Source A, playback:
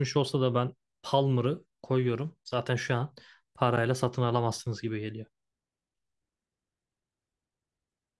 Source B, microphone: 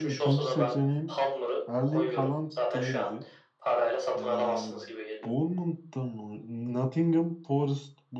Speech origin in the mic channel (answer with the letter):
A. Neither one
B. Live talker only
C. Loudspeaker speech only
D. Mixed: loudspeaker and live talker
D